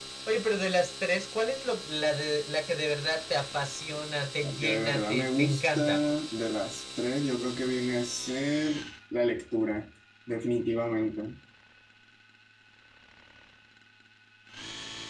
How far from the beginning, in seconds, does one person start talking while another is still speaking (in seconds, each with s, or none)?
4.4 s